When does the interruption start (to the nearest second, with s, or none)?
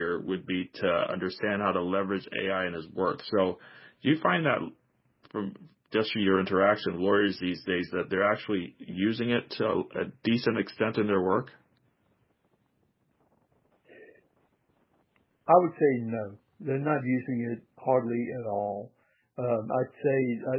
none